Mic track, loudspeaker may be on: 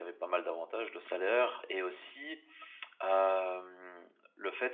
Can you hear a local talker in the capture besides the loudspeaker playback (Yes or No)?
No